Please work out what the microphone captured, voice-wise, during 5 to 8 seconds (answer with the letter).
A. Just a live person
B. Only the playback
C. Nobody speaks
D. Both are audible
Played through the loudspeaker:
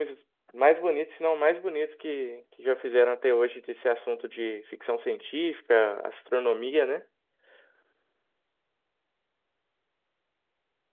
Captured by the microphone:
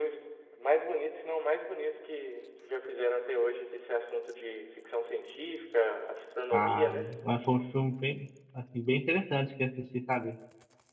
D